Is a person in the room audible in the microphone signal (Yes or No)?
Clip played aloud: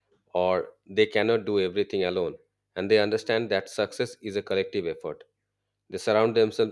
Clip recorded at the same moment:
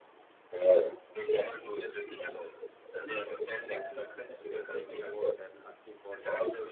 Yes